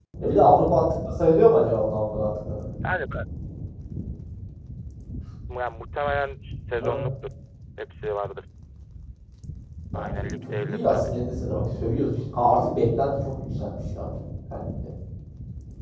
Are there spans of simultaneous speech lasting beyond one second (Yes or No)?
Yes